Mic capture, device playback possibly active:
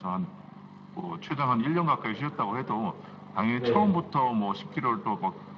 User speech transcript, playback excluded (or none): 네.